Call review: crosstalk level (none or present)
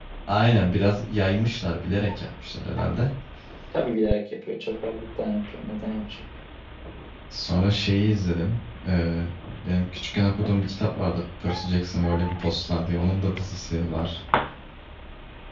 none